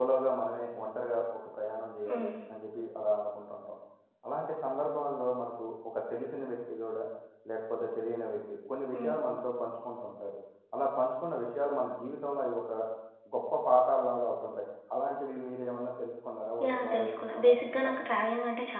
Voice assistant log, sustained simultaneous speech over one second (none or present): present